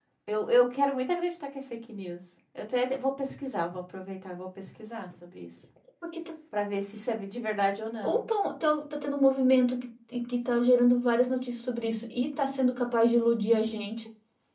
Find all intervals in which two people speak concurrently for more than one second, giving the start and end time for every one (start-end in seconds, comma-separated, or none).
none